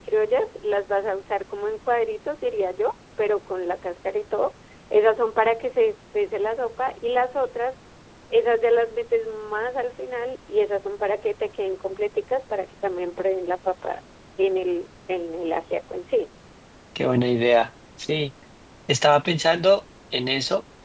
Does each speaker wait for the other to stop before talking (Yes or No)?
Yes